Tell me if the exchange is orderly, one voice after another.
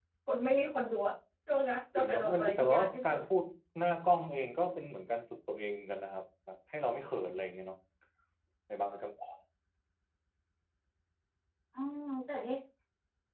No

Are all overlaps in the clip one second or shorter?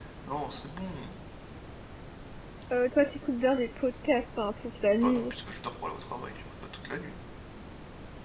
Yes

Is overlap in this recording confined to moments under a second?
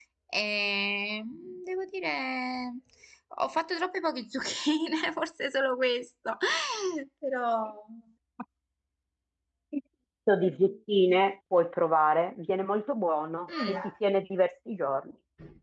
Yes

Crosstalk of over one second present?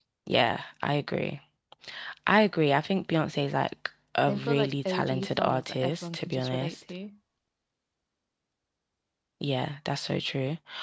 Yes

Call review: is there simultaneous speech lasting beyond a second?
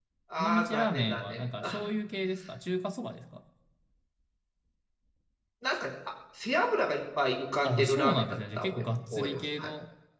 Yes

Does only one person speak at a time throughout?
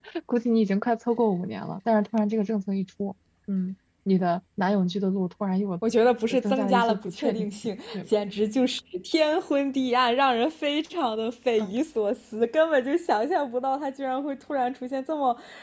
No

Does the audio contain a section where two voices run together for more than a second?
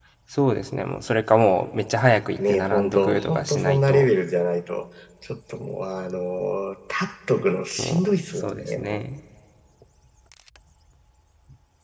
Yes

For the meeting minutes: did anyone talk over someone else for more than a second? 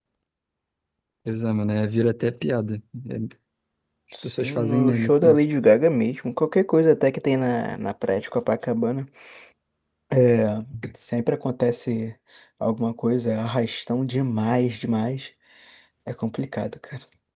Yes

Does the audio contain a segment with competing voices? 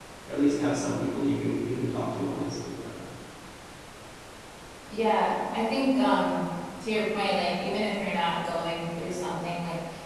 No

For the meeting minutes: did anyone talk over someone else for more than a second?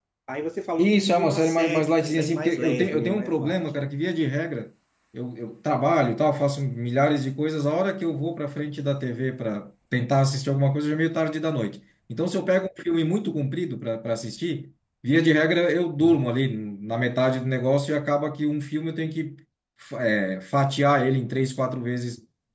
Yes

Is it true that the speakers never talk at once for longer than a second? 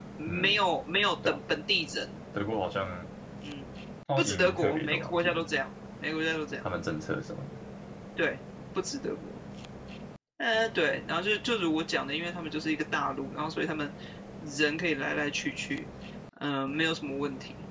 No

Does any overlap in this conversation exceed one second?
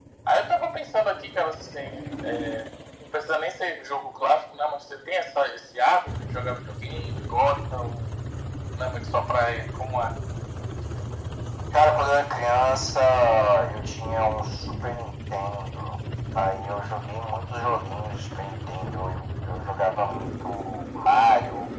No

